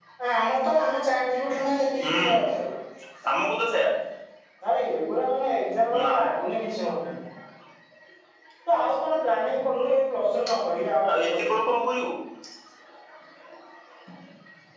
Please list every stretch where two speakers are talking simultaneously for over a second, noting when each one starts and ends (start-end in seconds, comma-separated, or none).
none